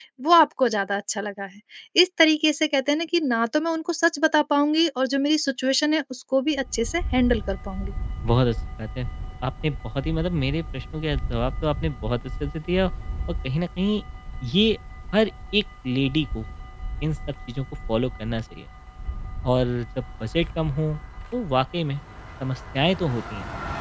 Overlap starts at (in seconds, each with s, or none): none